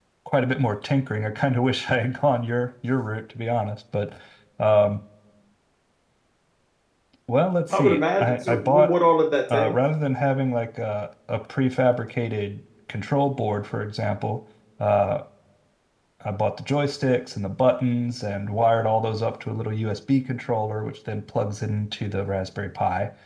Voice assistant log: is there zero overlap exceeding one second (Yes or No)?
No